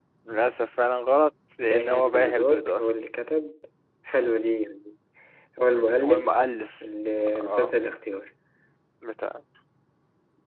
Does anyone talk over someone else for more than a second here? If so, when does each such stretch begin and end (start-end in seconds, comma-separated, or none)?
1.6-2.8